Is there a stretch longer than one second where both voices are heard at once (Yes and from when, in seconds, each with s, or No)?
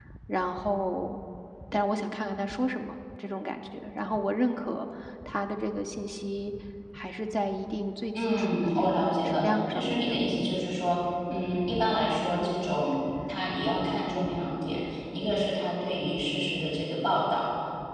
Yes, from 8.2 s